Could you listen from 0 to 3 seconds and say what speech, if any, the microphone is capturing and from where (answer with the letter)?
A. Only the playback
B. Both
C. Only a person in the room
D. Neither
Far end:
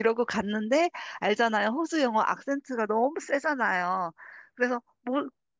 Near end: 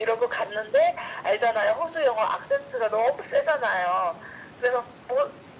A